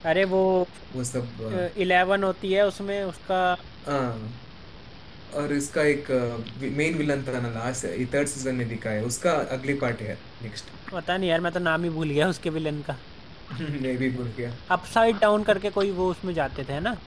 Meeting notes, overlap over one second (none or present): none